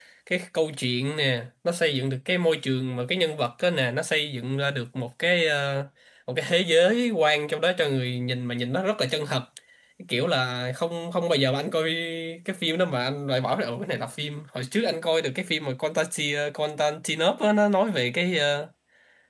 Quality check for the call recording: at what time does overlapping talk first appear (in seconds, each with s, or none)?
none